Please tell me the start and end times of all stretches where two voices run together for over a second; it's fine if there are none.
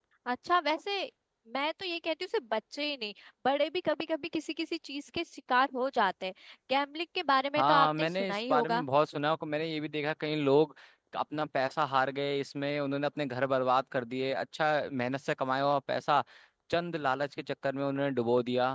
7.5-8.8

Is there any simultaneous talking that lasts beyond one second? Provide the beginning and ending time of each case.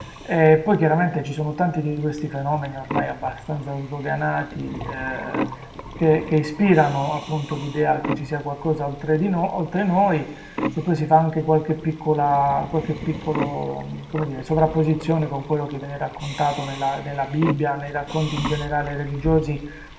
none

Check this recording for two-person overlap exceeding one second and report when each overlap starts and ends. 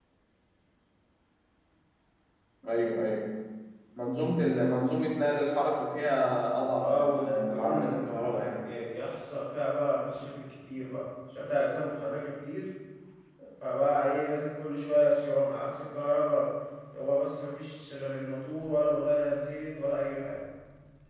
6.8-8.7

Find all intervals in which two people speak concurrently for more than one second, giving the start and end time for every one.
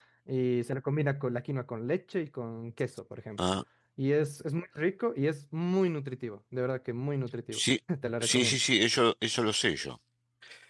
none

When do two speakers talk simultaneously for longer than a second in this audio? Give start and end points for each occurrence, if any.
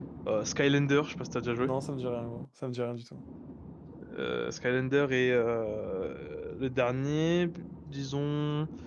none

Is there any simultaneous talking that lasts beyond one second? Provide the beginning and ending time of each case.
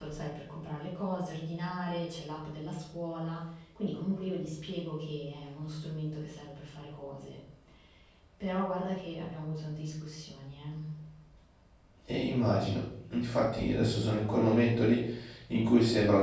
none

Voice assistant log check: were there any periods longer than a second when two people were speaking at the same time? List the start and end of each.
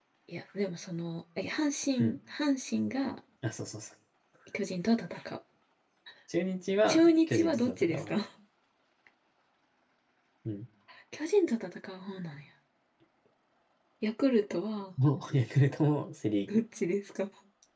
6.9-8.2

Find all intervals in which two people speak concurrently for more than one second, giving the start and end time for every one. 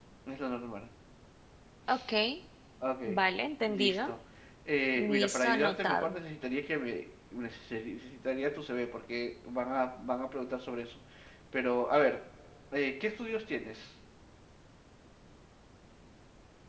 5.0-6.2

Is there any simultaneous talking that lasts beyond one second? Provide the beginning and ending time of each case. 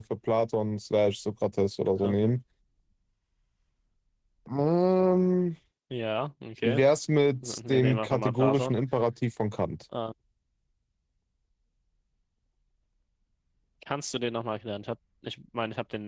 7.4-8.7

